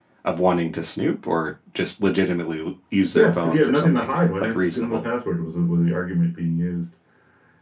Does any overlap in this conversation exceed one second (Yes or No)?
Yes